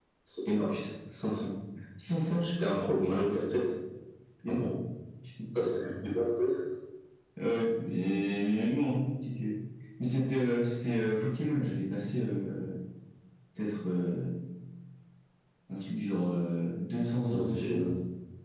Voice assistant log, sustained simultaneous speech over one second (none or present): none